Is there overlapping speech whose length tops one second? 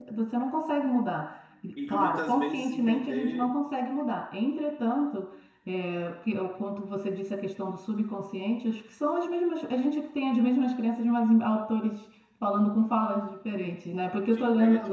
Yes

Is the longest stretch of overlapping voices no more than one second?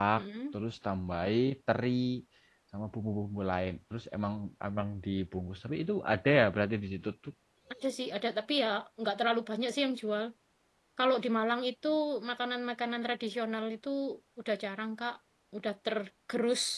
Yes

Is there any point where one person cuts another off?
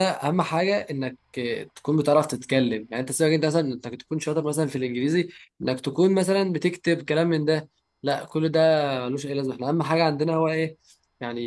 No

